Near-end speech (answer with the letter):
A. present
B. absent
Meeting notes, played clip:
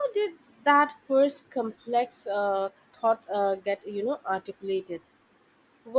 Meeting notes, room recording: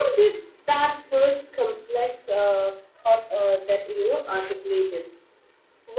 B